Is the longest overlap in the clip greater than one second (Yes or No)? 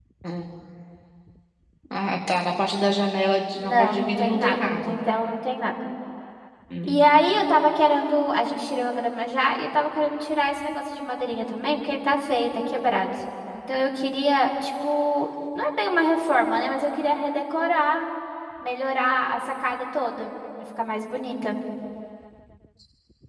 Yes